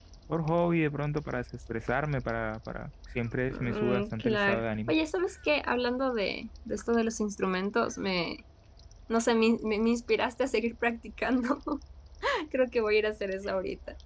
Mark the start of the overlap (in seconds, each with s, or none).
3.5 s